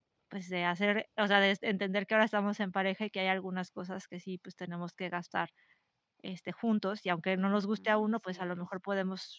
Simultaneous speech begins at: 7.4 s

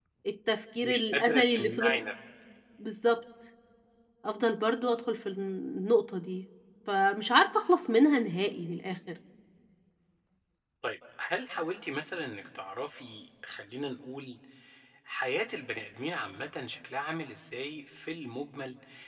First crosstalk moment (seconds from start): 0.8 s

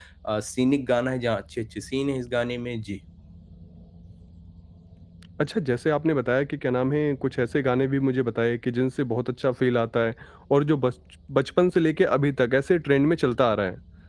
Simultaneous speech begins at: none

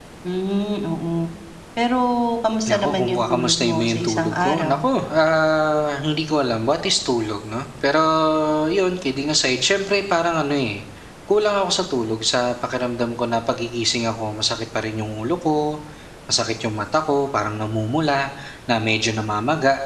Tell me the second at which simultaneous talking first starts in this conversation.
2.7 s

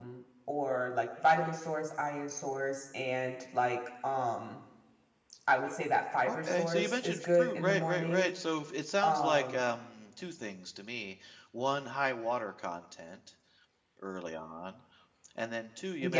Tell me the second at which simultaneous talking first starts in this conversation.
6.2 s

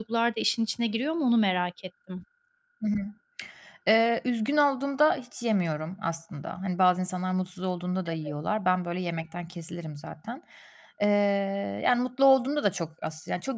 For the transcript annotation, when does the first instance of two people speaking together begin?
none

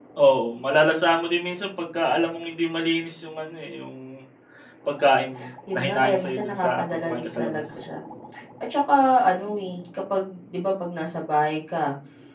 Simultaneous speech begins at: 5.7 s

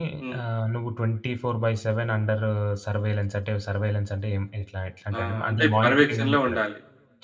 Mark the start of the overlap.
5.1 s

